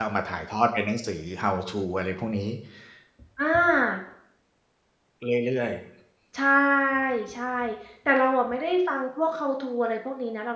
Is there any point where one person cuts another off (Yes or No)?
No